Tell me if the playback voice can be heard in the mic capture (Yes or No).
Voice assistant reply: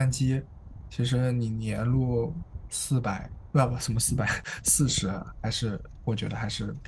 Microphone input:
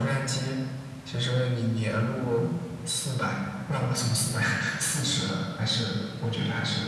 Yes